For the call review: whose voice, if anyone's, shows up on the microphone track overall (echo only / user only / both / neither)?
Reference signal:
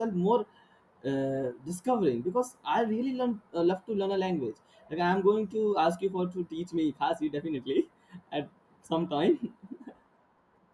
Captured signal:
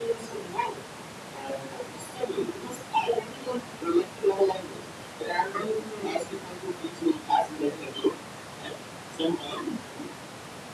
echo only